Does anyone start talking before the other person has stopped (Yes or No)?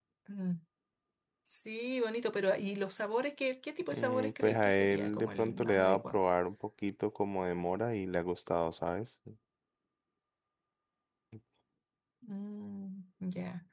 Yes